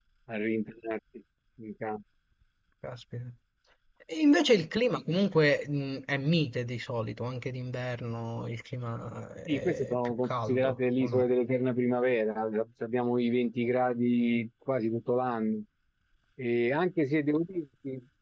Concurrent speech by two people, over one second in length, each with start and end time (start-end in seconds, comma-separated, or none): 9.5-11.2